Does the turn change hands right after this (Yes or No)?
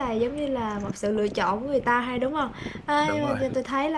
No